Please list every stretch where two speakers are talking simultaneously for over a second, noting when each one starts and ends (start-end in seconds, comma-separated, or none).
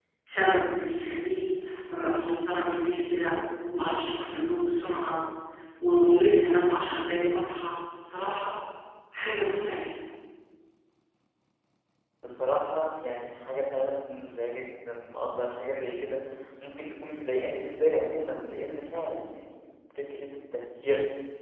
none